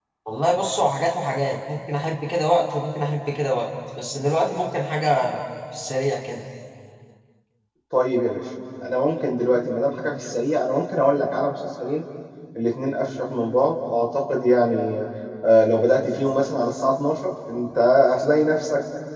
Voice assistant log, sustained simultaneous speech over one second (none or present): none